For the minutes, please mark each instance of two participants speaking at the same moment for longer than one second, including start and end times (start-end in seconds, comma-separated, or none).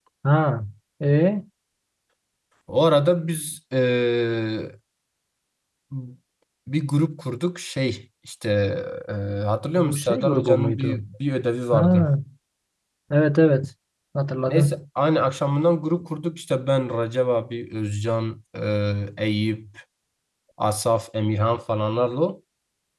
9.8-11.0